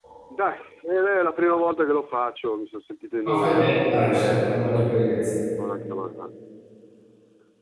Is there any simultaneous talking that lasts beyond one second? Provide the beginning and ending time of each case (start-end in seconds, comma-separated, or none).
3.3-5.0